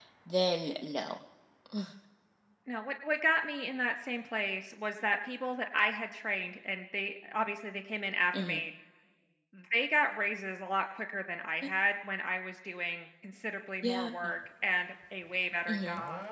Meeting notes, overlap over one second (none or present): none